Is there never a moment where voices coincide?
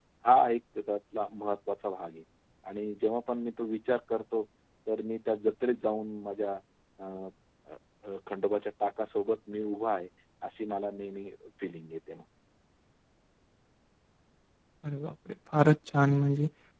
Yes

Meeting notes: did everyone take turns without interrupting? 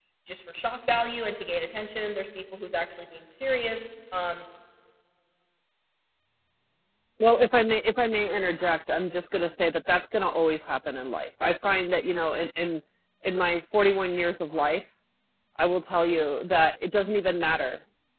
Yes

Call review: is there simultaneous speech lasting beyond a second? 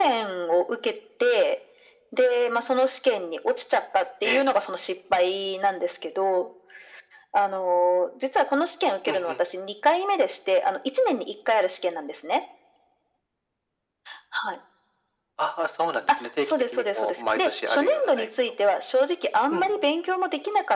Yes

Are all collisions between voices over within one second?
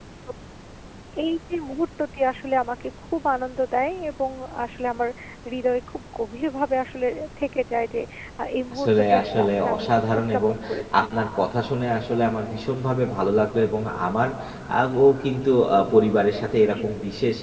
No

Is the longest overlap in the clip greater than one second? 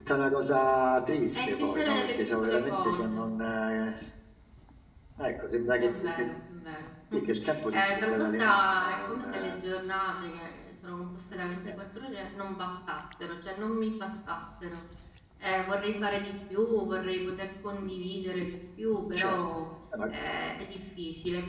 Yes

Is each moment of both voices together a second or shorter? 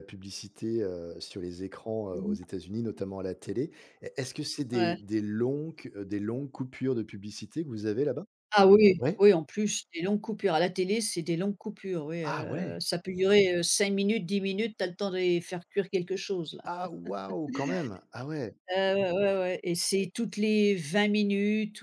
Yes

